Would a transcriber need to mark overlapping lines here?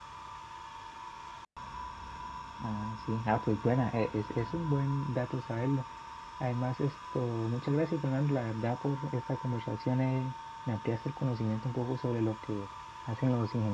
No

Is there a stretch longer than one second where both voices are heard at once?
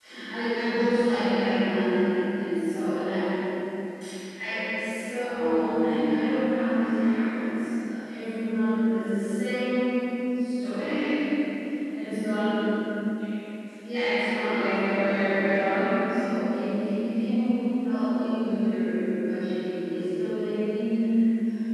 Yes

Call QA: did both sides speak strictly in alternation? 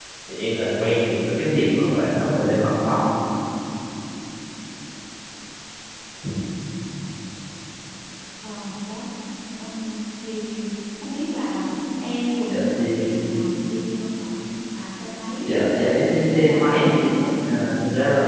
No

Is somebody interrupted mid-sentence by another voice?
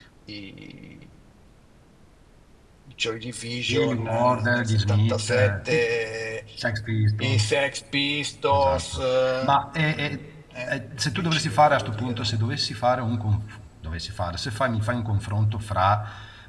Yes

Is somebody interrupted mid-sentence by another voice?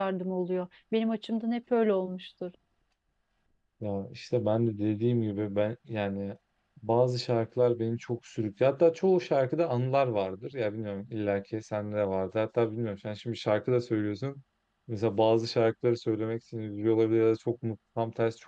No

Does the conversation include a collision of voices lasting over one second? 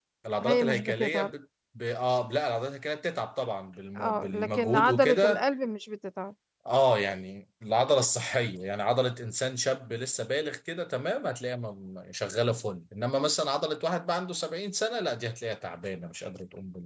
Yes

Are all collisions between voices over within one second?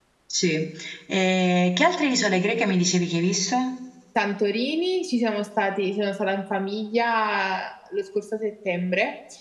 Yes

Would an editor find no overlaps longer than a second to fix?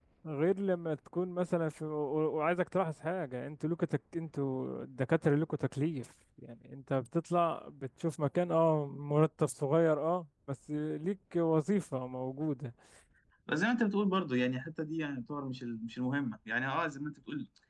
Yes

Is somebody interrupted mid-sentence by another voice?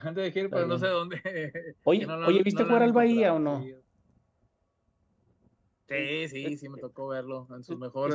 Yes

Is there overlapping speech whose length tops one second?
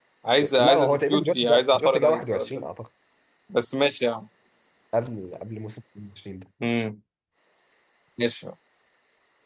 Yes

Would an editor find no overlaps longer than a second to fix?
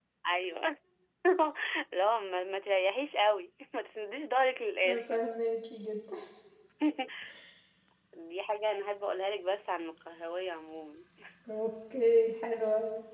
Yes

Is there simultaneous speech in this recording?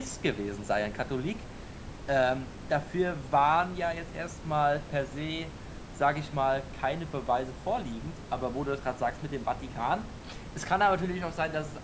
No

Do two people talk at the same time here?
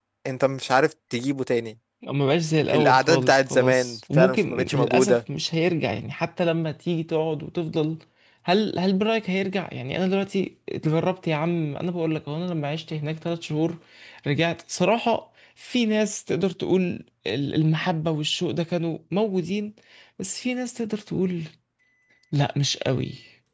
Yes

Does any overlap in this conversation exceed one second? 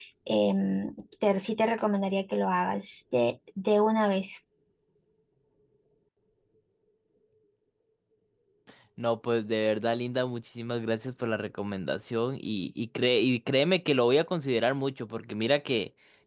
No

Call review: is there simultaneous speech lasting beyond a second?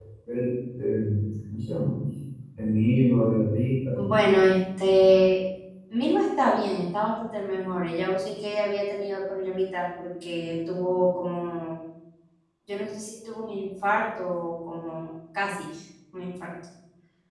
No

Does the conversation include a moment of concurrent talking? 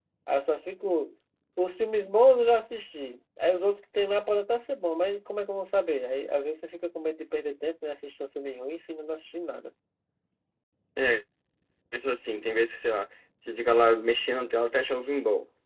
No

